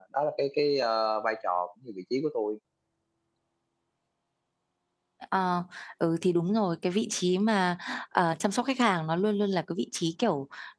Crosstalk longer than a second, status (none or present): none